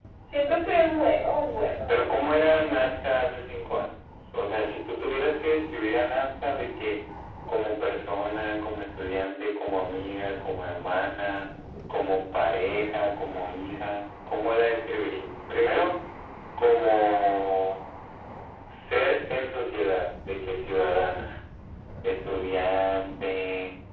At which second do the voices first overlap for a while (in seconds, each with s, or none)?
1.4 s